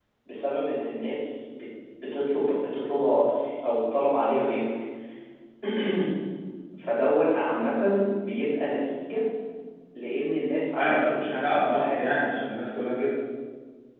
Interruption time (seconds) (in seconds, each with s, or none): 10.8 s